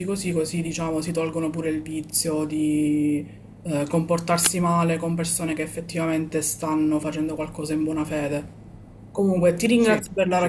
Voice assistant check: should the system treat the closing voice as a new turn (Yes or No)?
No